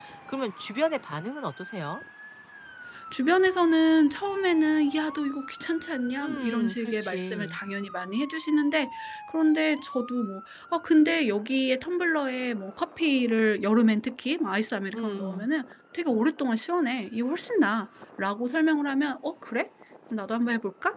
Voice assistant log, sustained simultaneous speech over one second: present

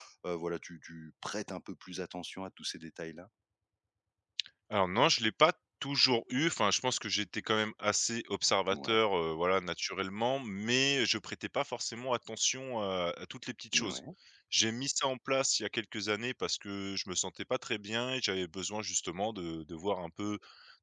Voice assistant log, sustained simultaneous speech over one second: none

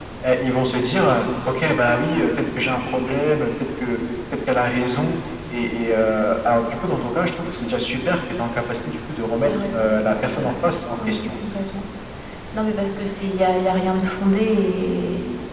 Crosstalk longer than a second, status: present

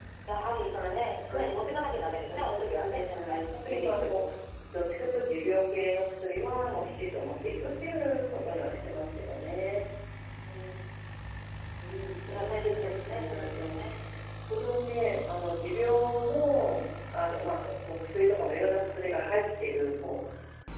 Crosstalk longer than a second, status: present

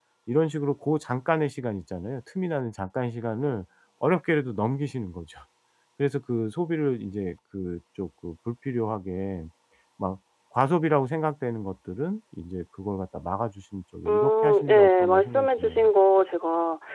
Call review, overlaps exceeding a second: present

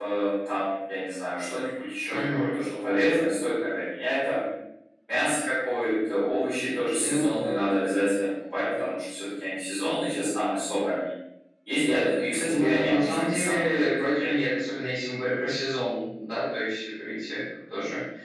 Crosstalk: present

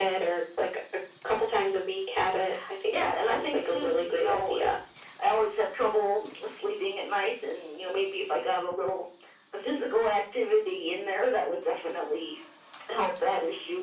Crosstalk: present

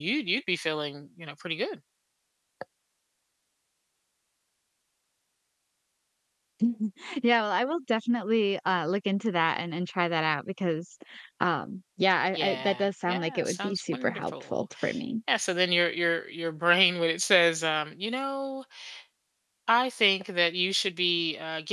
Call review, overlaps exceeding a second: present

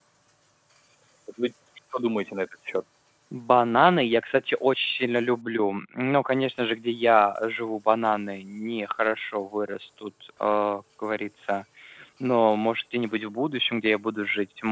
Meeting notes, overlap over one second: none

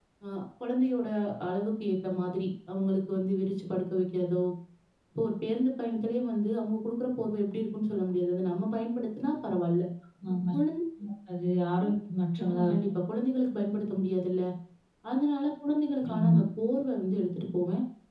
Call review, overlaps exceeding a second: none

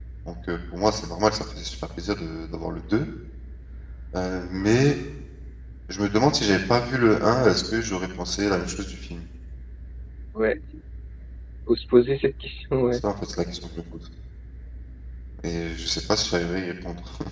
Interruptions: none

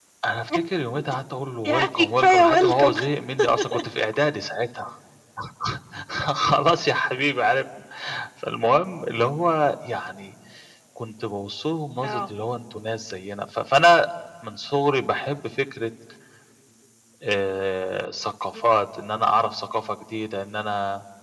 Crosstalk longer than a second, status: present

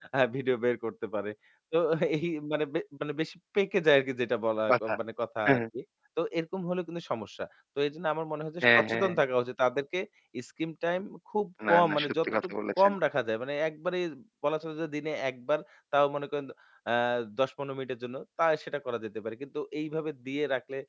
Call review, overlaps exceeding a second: present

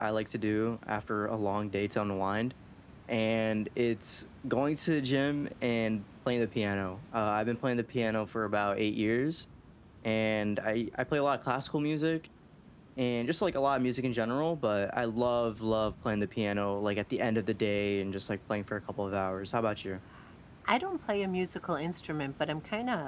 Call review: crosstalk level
none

